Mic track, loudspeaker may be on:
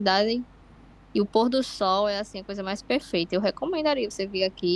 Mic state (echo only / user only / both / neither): user only